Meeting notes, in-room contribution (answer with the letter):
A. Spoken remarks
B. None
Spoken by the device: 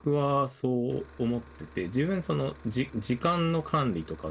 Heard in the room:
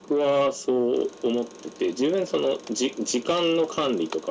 B